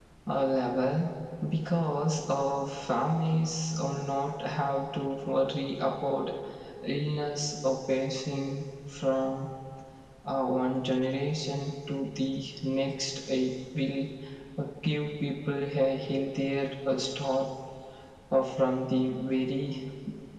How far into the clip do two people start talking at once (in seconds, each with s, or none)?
none